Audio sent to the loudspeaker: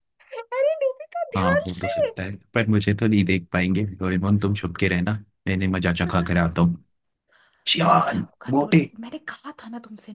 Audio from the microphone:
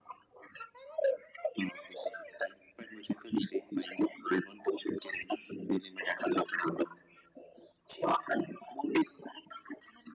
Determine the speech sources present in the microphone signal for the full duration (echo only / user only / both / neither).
echo only